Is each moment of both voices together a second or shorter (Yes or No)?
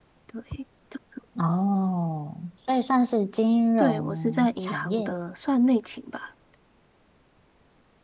No